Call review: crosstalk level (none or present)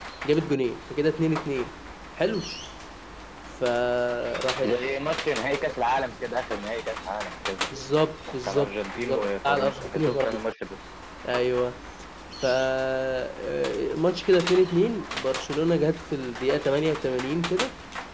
present